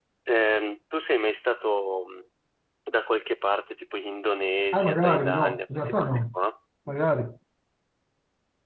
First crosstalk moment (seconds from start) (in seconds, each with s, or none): 4.7 s